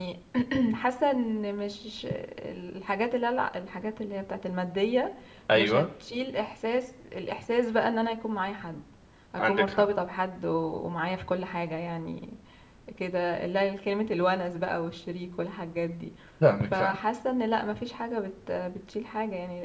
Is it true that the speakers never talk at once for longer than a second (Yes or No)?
Yes